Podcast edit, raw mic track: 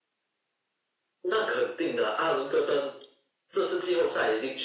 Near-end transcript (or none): none